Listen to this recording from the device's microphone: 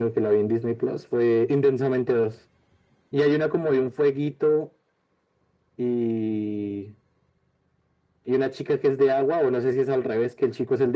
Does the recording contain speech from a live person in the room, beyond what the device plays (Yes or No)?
No